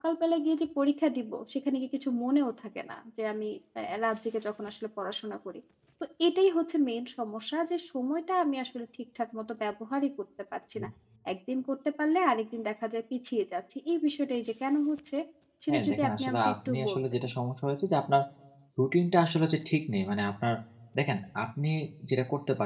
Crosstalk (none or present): present